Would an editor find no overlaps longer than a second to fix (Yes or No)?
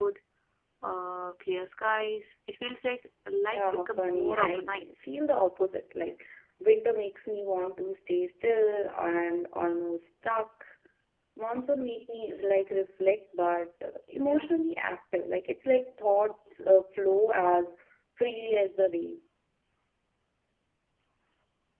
No